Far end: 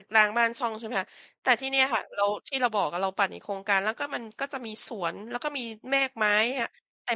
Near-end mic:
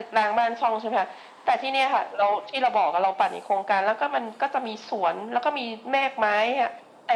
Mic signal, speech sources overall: echo only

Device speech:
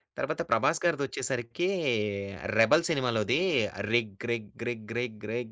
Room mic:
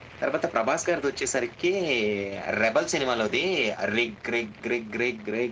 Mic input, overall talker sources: echo only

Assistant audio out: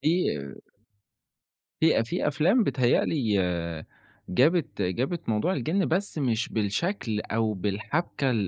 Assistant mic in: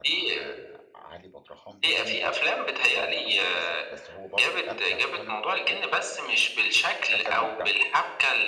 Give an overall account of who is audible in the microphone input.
both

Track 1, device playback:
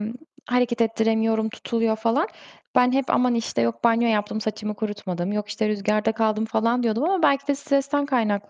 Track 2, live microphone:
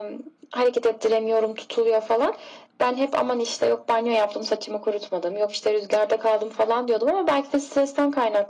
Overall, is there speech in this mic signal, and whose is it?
echo only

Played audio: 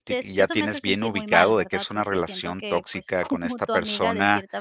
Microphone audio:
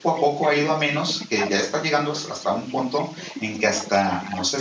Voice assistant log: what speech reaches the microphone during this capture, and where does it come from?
both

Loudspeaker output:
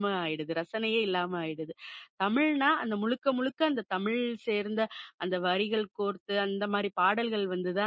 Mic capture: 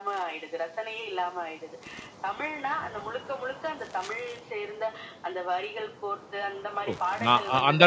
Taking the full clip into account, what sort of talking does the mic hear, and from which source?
both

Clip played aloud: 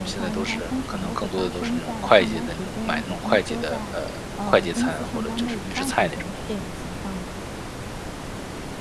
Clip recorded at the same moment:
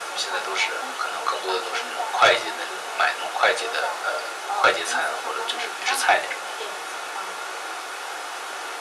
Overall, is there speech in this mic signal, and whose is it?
echo only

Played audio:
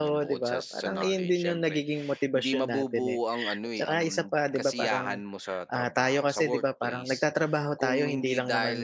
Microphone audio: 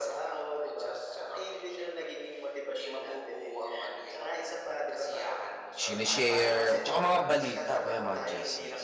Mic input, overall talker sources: both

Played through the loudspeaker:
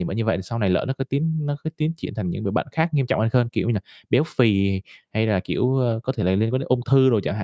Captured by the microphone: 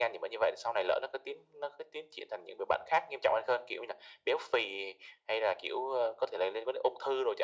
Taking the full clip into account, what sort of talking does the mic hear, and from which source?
echo only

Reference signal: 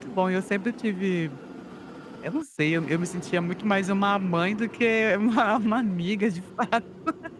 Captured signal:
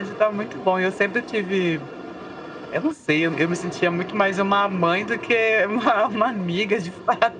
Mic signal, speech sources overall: echo only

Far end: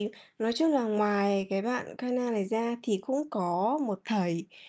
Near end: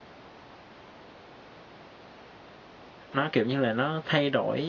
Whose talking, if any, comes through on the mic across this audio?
user only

